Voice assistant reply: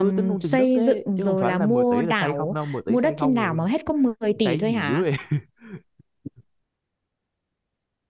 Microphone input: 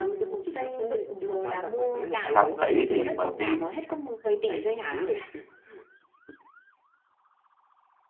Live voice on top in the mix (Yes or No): Yes